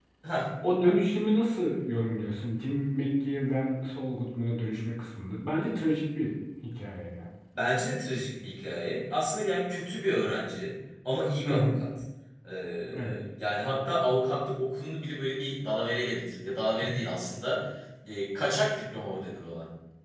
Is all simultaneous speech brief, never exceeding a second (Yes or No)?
Yes